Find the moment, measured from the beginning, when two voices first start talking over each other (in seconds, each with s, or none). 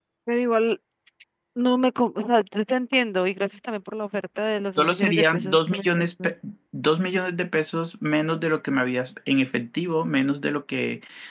4.8 s